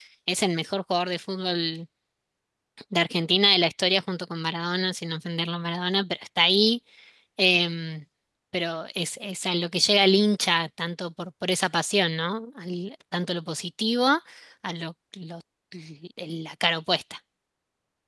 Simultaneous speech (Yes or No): No